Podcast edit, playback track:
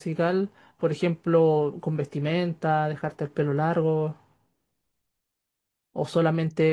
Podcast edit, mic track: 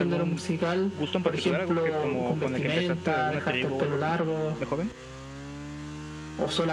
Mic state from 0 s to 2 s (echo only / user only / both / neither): both